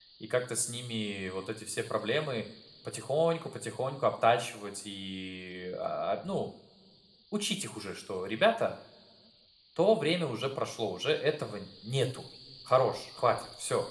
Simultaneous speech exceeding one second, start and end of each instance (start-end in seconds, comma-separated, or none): none